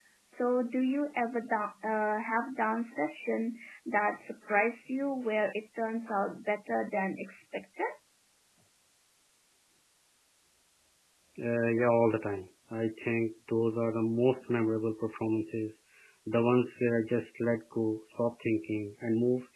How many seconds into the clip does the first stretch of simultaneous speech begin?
none

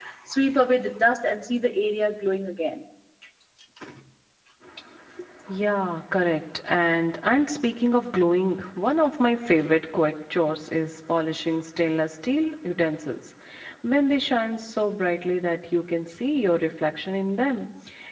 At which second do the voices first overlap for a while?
none

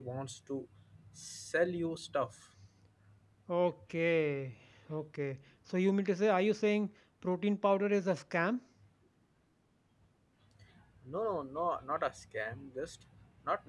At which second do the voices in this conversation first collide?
none

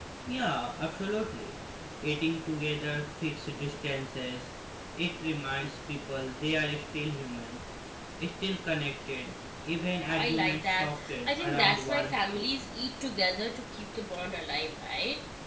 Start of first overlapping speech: 10.0 s

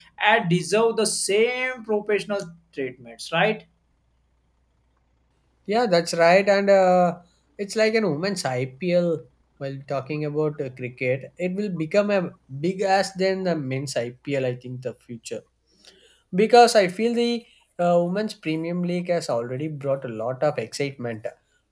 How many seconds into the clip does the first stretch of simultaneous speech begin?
none

